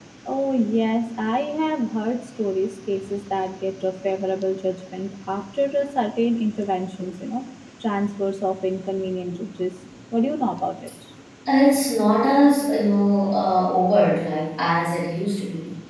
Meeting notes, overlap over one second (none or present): none